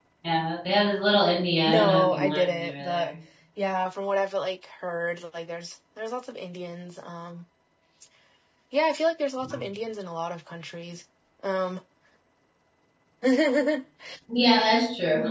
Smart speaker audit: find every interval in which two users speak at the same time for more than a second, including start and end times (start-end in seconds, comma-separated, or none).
1.7-3.1